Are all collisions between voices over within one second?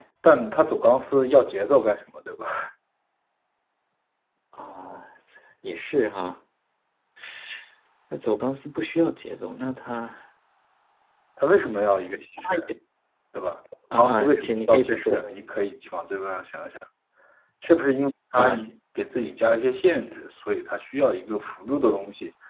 No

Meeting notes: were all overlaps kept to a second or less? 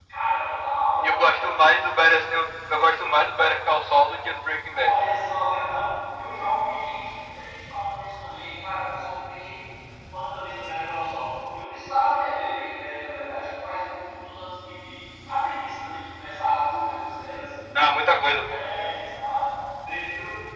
Yes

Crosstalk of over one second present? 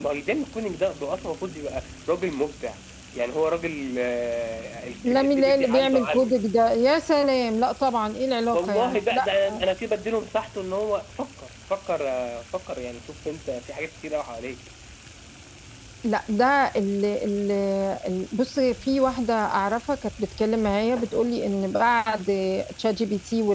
Yes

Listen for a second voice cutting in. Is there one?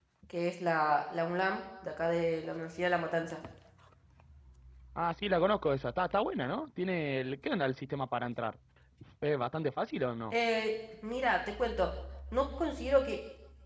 No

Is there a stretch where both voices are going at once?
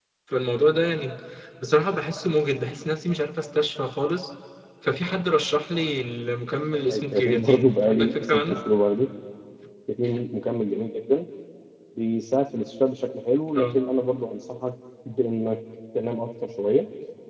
Yes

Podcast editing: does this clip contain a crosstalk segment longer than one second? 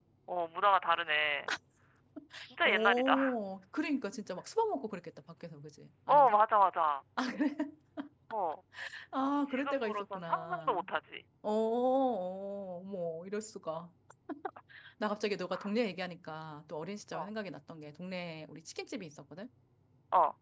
Yes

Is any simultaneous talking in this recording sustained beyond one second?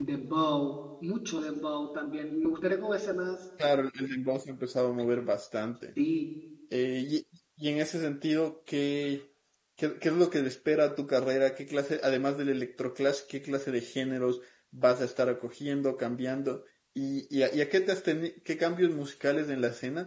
No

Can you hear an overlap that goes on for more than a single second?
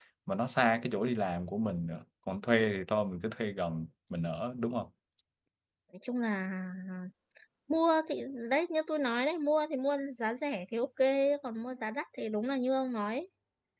No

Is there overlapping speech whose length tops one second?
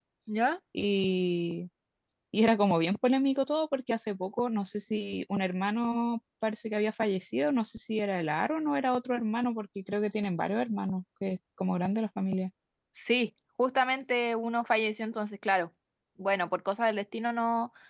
No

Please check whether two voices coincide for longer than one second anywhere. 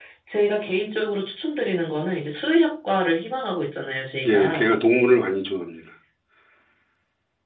No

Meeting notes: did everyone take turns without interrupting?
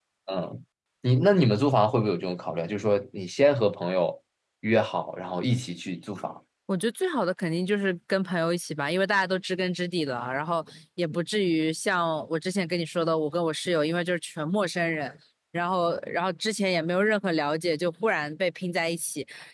Yes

